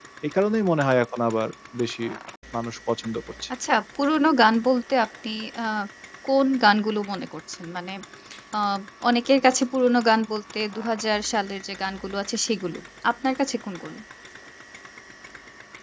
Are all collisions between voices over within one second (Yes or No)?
Yes